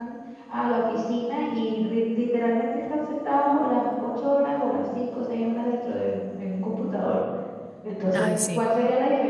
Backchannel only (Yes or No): Yes